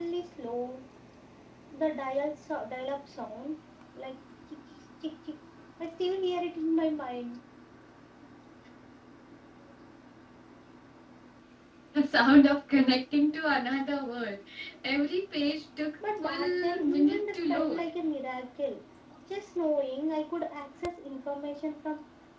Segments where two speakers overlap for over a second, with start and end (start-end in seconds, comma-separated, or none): 16.2-17.8